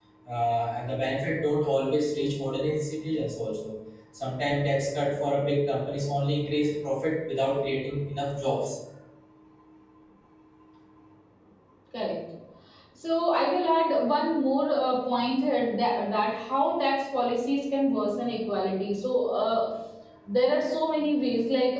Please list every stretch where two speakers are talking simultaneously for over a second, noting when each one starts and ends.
none

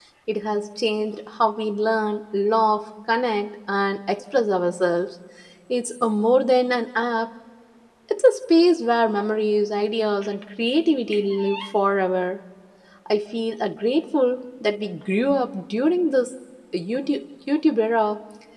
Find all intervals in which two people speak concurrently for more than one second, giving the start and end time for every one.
none

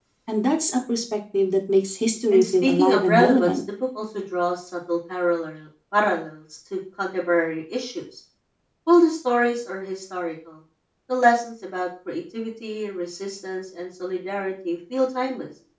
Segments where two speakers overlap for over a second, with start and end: 2.3-3.6

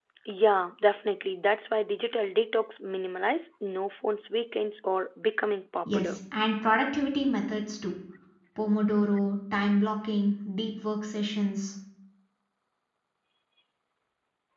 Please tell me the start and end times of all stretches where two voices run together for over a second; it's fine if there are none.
none

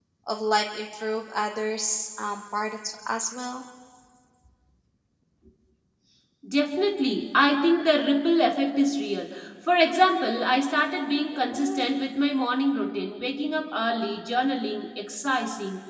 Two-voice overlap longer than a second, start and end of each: none

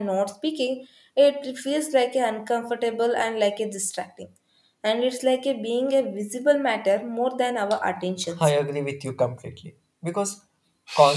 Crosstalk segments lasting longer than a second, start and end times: none

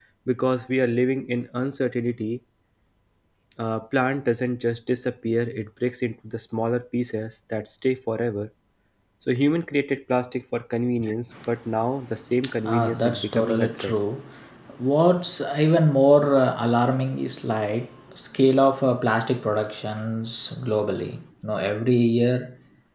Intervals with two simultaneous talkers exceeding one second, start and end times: 12.7-13.9

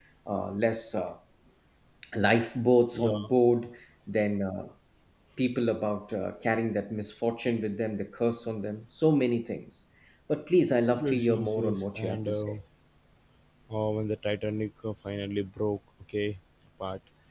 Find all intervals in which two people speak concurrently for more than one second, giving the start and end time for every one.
11.0-12.5

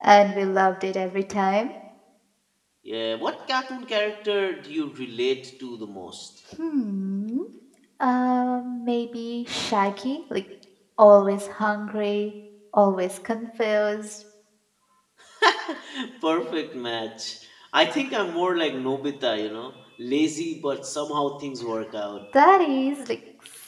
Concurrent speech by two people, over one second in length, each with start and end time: none

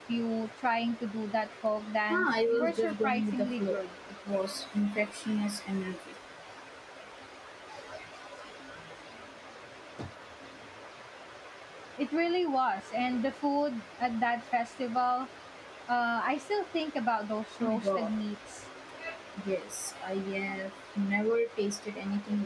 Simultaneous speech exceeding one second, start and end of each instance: 2.1-3.8

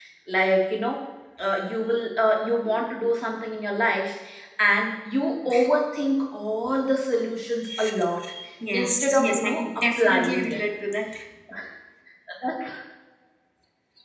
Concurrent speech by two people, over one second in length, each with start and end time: 8.7-10.6

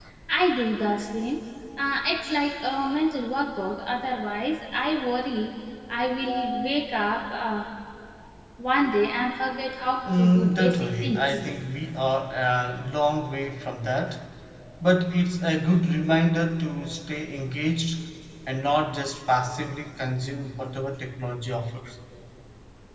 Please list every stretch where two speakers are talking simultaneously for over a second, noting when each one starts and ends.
10.2-11.4

